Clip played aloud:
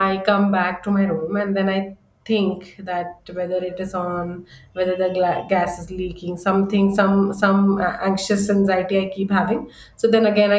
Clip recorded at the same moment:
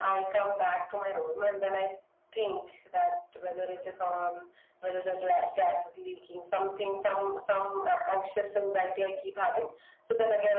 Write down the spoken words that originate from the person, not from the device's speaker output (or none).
none